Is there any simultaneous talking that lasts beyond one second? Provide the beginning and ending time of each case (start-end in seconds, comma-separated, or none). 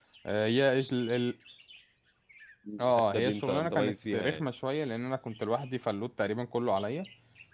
2.8-4.5